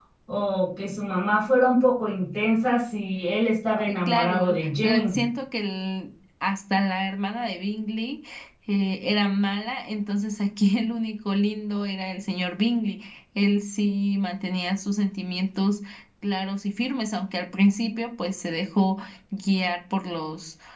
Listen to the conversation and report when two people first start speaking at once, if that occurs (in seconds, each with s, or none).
3.9 s